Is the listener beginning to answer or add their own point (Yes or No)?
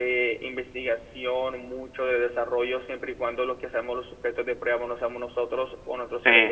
No